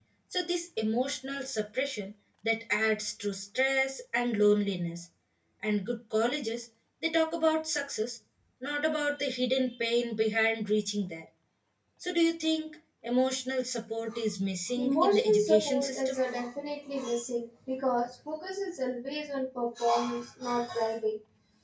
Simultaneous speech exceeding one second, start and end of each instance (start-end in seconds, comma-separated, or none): 14.8-16.2